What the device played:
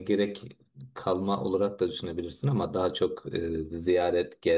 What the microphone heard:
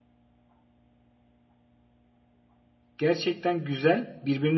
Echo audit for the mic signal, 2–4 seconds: user only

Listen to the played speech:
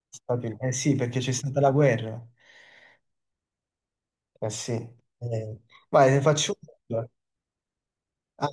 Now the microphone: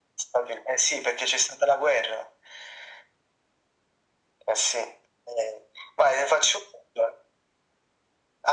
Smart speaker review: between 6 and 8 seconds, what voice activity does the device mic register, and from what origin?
echo only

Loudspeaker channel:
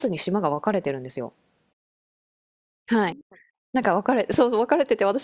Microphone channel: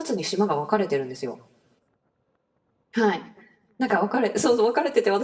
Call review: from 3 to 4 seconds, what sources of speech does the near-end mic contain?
echo only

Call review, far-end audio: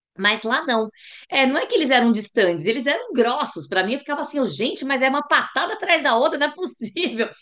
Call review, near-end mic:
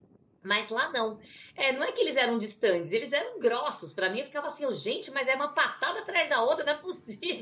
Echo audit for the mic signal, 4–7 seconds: echo only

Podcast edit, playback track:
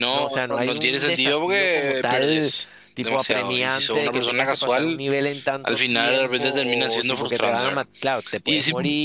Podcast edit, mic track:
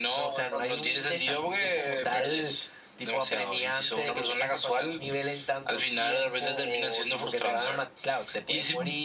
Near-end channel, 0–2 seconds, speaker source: echo only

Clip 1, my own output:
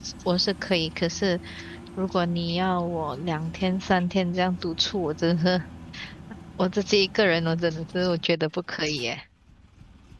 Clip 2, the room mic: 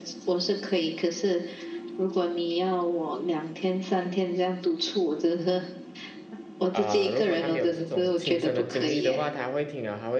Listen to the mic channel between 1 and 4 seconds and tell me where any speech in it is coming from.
echo only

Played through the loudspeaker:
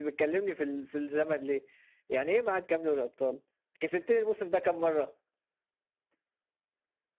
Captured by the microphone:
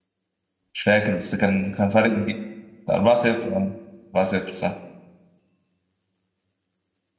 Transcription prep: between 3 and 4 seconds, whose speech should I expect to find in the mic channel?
user only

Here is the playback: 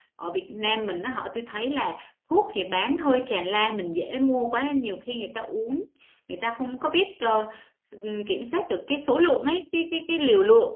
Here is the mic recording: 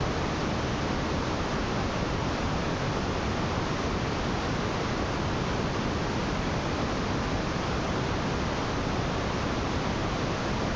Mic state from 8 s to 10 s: neither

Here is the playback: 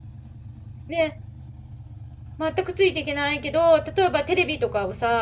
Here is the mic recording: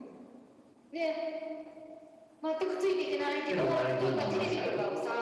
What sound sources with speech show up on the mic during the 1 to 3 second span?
echo only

